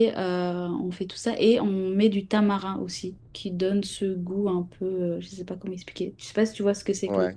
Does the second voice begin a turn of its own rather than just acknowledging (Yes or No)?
Yes